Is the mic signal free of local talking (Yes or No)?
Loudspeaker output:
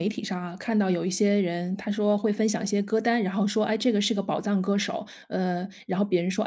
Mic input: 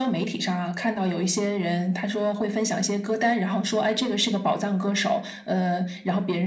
Yes